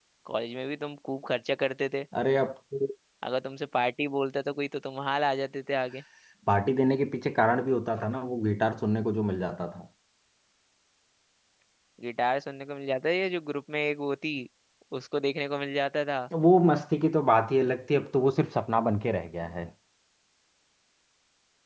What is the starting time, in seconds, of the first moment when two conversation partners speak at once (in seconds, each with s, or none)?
none